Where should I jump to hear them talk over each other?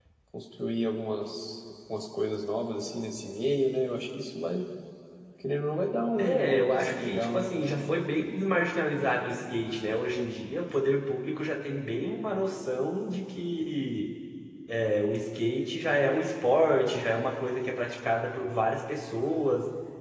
6.2 s

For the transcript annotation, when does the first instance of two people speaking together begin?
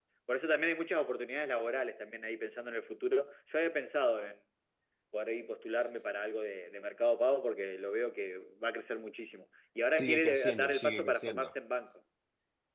9.9 s

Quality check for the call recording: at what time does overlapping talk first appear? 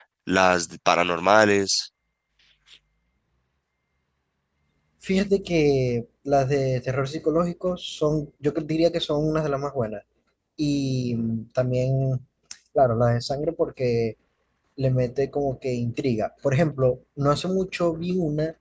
none

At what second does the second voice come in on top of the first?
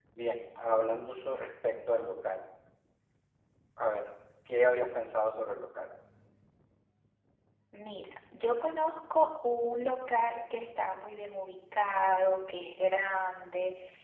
none

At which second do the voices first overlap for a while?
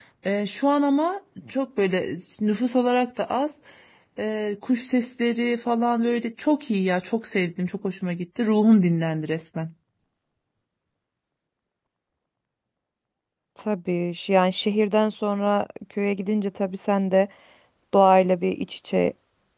none

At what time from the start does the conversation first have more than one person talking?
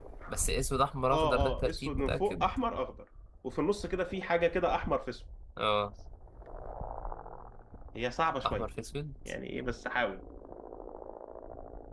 1.1 s

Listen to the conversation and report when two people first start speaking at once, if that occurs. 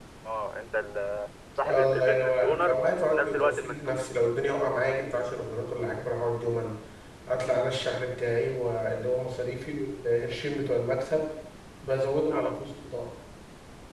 1.7 s

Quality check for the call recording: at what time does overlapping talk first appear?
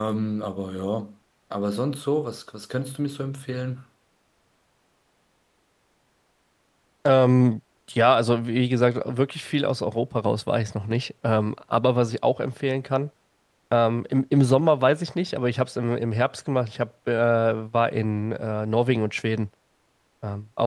none

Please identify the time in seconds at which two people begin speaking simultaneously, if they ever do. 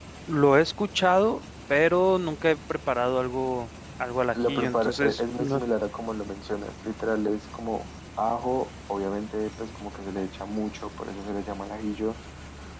4.3 s

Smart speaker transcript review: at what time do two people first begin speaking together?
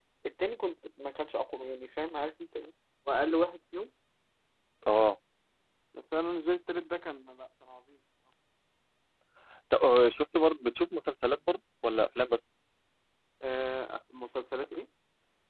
none

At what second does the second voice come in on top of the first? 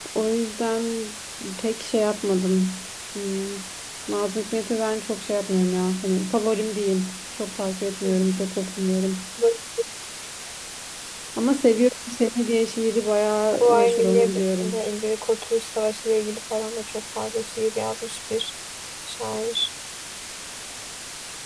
13.5 s

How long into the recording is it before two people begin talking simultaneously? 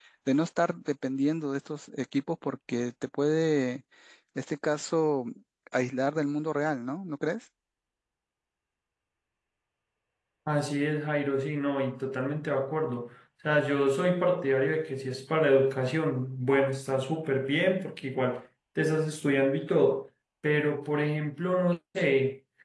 none

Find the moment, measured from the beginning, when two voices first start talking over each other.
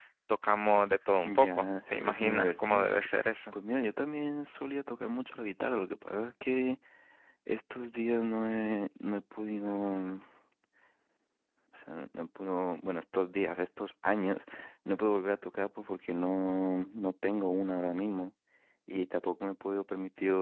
1.2 s

